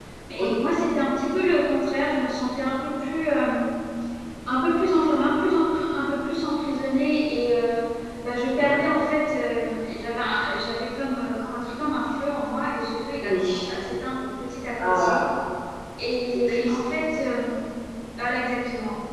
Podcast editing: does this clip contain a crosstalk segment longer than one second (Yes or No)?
No